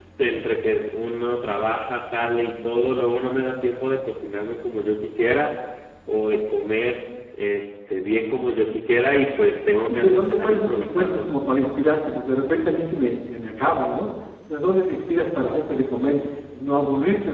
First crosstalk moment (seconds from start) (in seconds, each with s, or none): 9.8 s